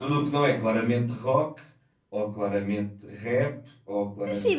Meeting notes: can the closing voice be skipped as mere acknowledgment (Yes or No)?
No